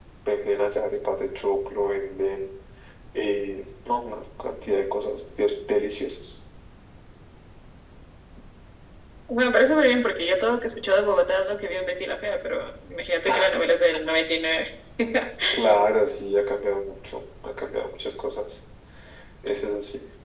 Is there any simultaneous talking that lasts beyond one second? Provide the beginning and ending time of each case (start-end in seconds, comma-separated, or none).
none